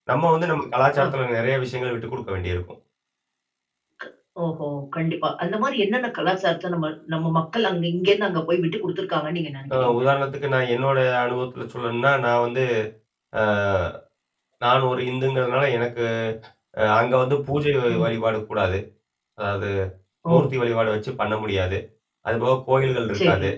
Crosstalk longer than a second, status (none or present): none